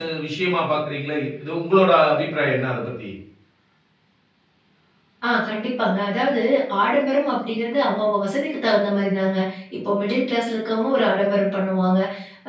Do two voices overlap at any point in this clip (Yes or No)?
No